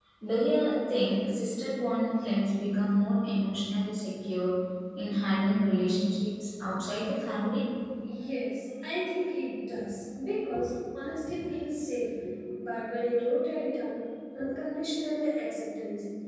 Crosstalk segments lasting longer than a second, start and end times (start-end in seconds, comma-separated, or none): none